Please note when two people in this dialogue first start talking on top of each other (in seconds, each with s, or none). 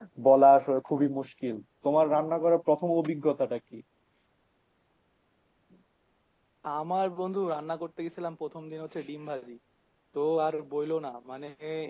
none